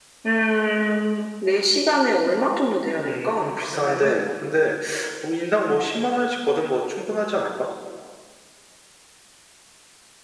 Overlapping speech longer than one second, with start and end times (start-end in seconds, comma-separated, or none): 3.0-4.3